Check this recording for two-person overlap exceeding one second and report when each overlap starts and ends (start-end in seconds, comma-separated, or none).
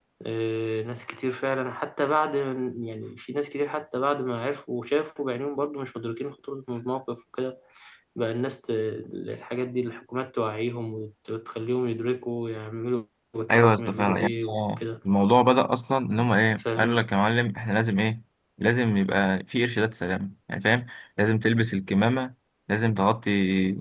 13.5-14.8